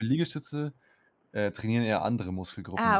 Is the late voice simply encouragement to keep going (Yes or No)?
No